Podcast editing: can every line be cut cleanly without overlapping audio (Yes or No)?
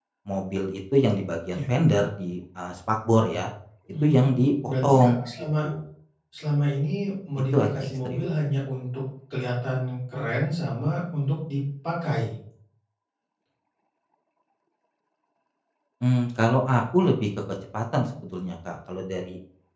No